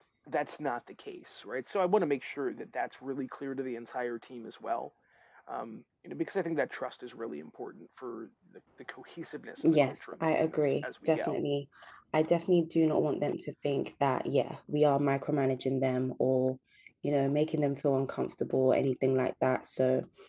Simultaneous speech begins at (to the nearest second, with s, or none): 10 s